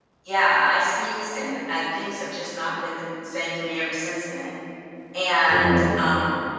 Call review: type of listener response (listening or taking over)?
listening